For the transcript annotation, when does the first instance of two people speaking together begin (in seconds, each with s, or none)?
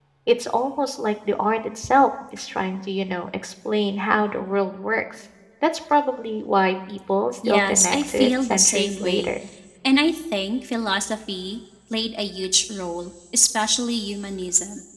7.4 s